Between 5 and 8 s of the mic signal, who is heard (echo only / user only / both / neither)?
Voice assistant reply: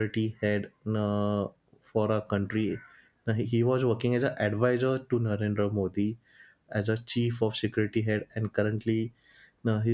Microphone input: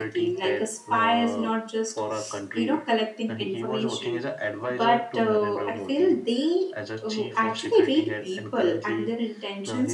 both